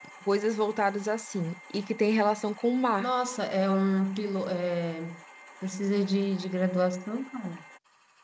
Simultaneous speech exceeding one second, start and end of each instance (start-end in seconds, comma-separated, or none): none